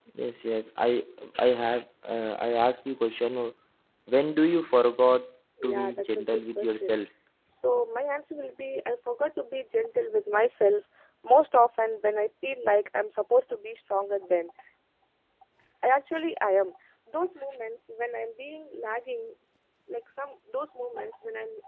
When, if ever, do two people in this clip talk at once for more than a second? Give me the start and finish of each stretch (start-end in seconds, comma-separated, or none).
5.6-7.0